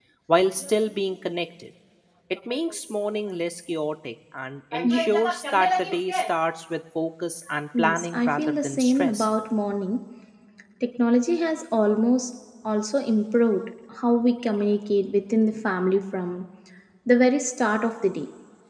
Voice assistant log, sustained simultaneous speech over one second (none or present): present